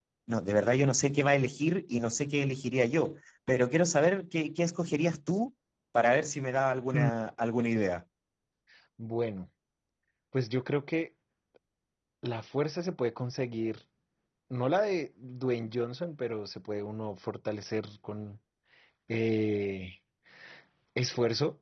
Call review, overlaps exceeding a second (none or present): none